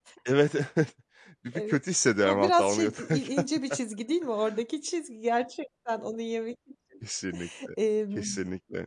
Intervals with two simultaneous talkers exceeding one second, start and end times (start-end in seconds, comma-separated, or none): 2.2-3.5